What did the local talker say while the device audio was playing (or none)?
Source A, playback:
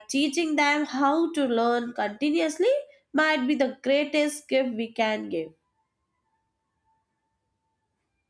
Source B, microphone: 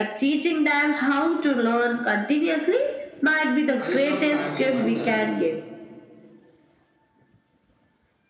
I sometimes wonder